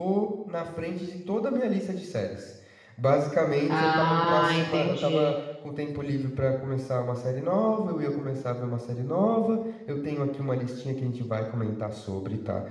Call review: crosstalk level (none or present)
present